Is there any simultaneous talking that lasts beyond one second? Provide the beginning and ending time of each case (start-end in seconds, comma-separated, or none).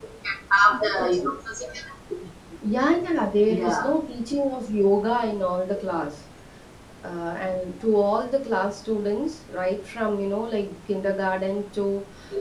none